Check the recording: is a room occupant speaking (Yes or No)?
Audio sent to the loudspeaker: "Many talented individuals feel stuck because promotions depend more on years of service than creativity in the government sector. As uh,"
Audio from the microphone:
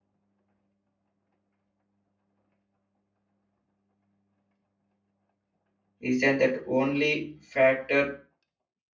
Yes